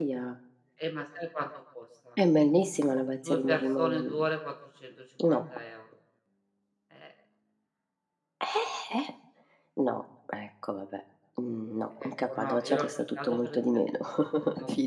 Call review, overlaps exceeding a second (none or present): present